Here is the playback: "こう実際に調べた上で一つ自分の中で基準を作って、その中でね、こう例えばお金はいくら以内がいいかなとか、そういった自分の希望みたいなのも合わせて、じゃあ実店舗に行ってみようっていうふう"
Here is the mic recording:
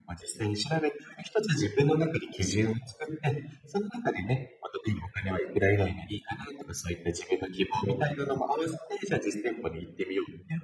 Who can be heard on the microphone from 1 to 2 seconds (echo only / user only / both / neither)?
echo only